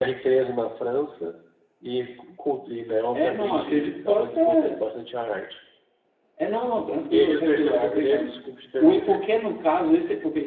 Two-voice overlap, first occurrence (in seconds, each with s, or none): 3.1 s